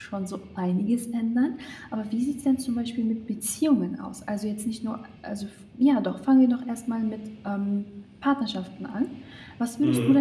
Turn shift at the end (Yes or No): No